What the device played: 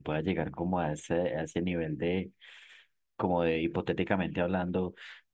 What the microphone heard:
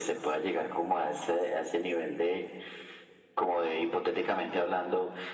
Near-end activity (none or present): none